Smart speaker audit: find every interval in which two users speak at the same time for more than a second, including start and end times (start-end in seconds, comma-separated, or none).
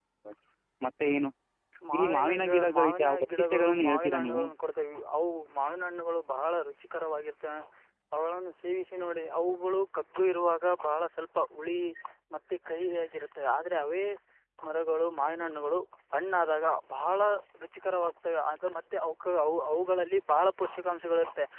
1.9-4.4